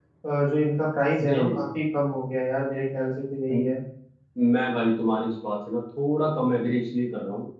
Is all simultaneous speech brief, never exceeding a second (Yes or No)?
Yes